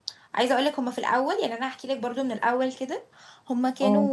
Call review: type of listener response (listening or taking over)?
listening